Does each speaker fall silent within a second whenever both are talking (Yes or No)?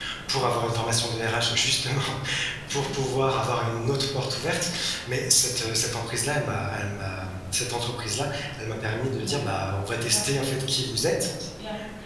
Yes